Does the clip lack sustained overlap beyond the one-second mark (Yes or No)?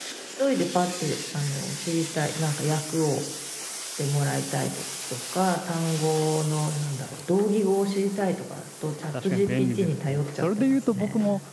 No